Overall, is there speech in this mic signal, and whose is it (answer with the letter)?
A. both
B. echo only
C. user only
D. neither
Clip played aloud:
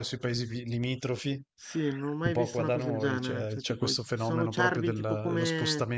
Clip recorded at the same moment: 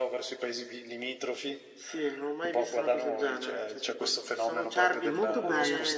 A